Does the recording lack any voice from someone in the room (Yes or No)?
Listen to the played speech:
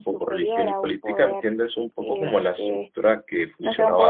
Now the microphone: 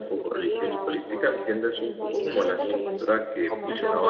No